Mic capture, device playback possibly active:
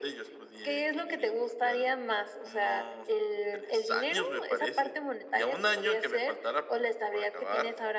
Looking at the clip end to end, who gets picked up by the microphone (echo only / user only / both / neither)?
echo only